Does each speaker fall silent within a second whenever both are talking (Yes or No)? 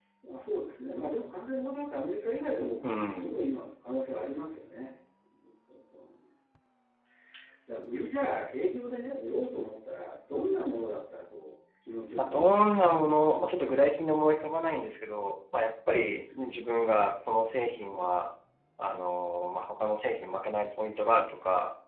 No